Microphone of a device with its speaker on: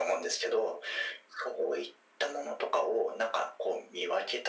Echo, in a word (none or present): present